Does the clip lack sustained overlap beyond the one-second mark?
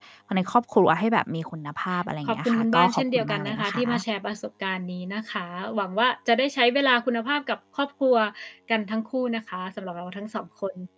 No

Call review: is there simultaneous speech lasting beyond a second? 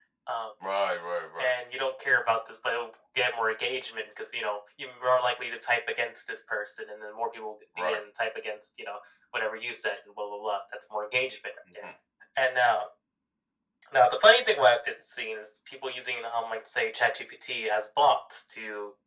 No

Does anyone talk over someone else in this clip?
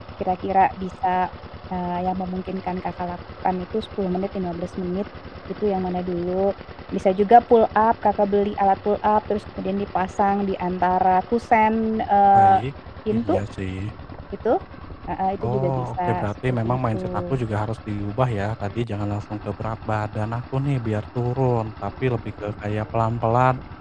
Yes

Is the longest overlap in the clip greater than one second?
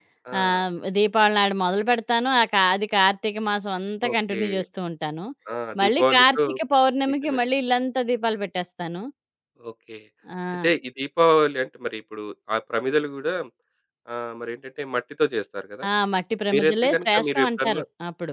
Yes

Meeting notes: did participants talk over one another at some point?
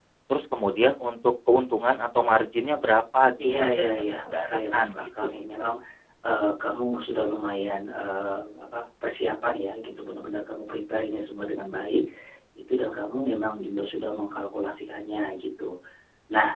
Yes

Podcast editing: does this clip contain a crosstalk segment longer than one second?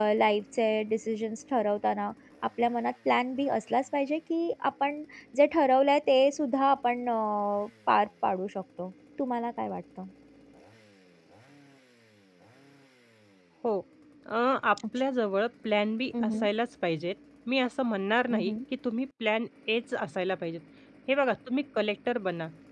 No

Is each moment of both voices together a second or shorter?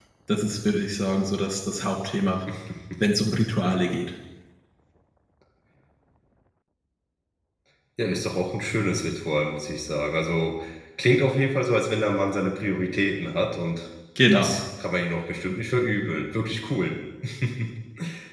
Yes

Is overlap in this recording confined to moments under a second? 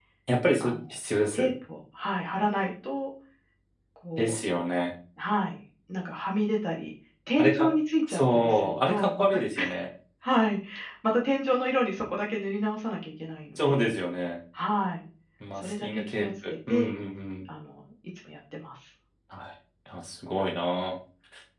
No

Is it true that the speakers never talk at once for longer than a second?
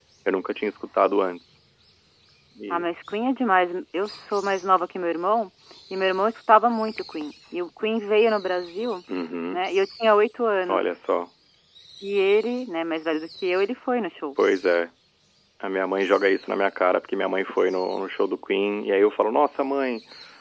Yes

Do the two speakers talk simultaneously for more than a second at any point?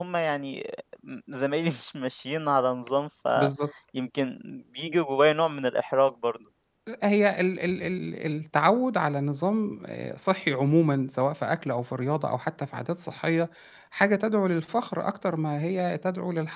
No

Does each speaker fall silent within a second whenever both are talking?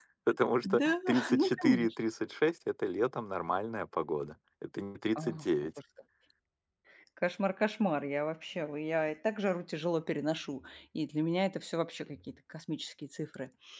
No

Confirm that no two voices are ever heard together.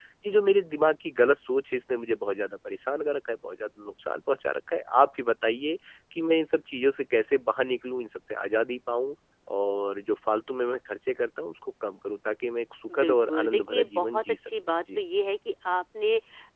No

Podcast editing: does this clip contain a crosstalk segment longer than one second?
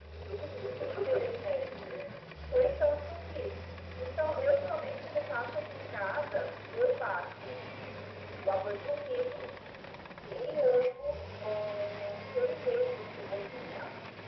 No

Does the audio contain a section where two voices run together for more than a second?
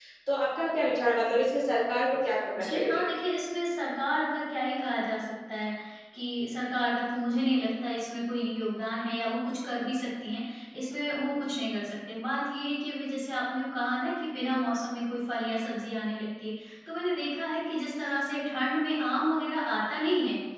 No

